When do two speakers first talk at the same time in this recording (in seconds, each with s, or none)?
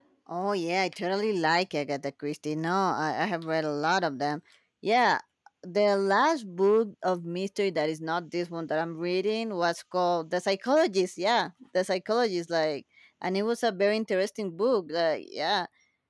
none